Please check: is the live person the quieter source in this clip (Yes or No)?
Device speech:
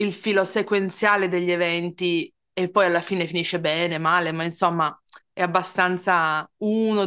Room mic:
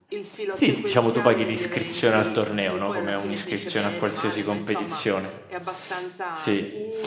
No